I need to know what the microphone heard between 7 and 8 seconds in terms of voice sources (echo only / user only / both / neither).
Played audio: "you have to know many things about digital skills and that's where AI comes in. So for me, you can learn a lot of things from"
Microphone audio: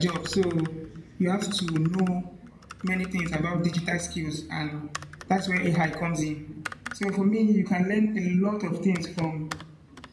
echo only